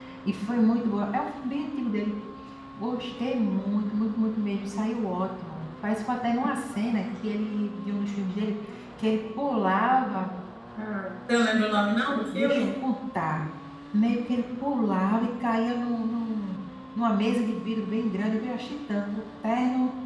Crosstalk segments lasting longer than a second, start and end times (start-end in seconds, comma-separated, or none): none